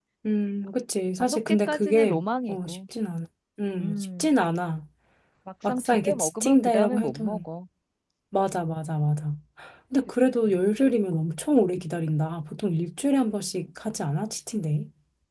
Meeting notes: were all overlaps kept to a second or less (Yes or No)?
No